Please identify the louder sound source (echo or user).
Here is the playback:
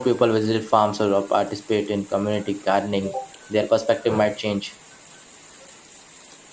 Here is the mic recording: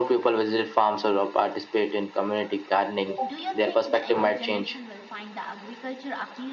echo